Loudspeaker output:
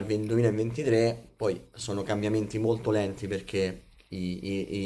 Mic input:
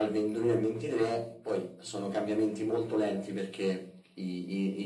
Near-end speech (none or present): none